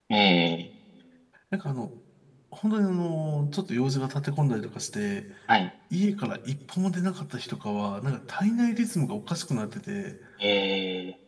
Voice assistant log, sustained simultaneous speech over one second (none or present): none